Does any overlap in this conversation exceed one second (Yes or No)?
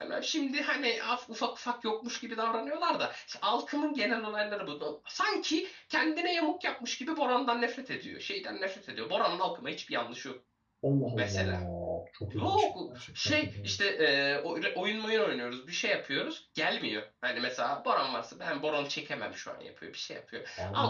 Yes